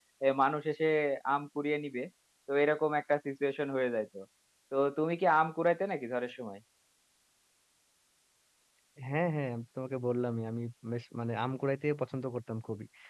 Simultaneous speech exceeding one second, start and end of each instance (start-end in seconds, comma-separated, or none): none